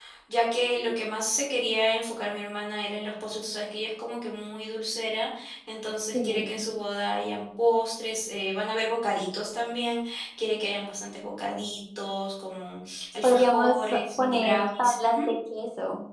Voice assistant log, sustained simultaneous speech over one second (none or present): present